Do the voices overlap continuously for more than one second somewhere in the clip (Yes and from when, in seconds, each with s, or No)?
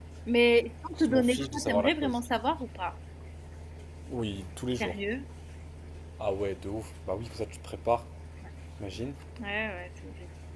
Yes, from 1.0 s